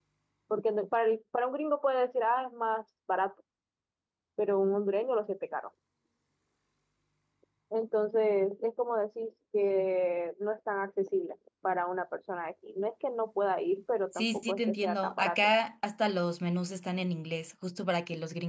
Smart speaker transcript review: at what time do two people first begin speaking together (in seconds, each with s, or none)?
14.1 s